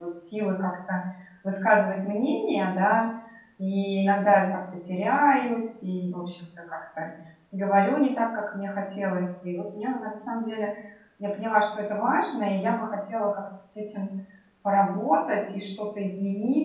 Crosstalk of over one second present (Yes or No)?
No